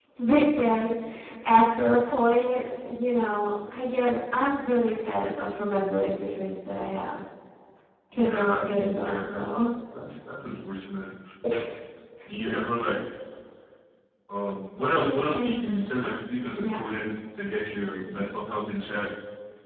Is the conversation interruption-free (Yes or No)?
No